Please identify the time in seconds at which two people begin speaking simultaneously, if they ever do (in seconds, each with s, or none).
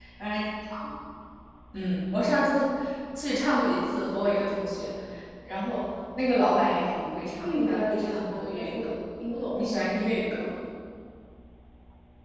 7.4 s